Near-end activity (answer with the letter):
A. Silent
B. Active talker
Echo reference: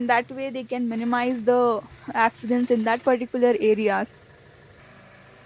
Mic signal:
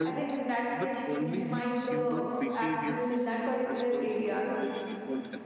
B